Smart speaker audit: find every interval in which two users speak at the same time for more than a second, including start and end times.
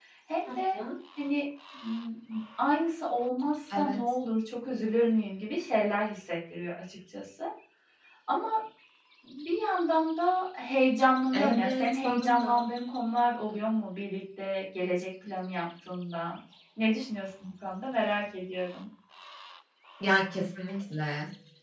11.3-12.7

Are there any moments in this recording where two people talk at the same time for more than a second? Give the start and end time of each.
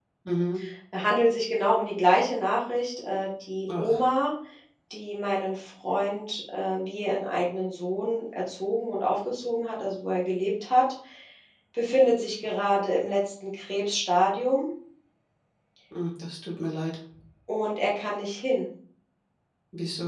none

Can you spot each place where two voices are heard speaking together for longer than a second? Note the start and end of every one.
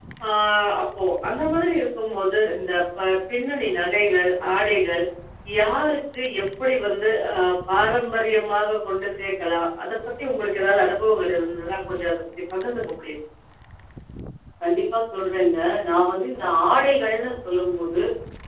none

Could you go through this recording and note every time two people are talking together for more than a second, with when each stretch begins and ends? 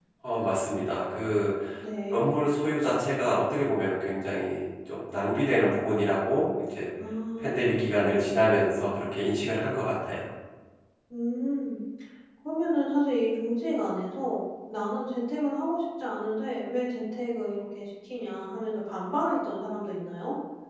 7.4-8.6

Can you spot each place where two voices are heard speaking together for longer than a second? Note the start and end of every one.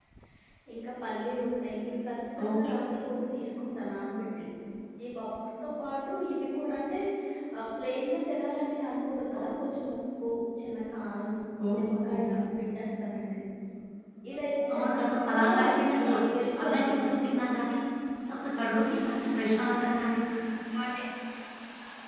14.7-16.0

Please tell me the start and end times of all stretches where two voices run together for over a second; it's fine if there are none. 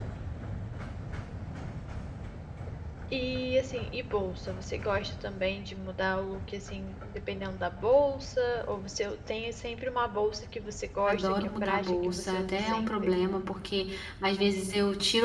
11.1-12.9

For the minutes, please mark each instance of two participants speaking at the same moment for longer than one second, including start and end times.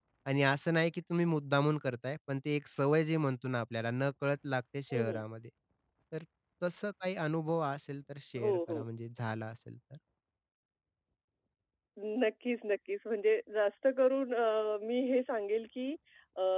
none

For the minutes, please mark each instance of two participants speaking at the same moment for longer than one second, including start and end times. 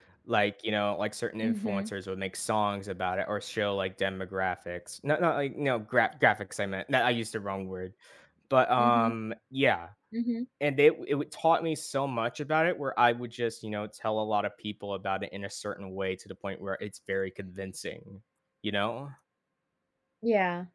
none

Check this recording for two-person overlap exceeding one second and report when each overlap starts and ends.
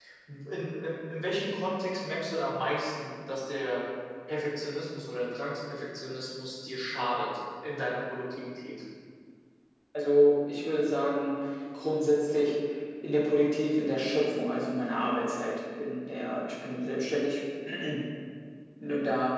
none

